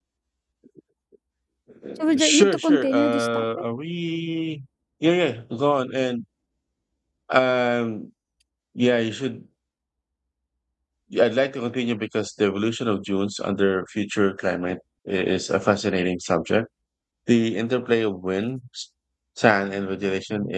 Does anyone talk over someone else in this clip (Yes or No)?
Yes